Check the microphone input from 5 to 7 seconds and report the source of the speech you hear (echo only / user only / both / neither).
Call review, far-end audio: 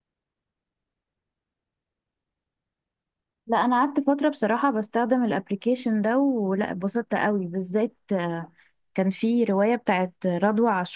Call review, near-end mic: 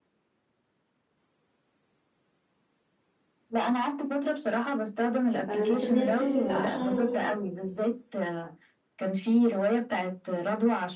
both